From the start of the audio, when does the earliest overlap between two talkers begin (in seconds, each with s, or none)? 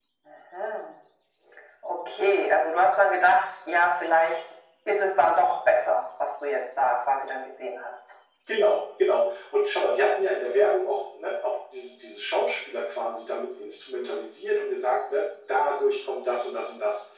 none